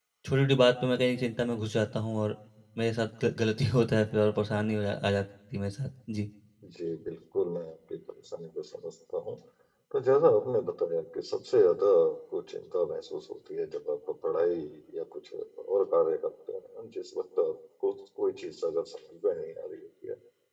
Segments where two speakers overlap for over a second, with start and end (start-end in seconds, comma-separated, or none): none